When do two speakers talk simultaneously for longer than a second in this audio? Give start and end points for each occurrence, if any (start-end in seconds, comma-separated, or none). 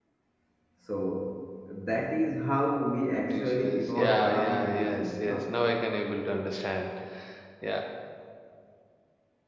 3.1-5.5